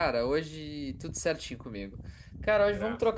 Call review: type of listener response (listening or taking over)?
listening